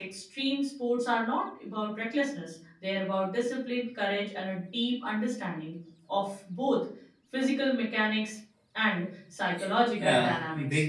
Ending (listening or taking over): taking over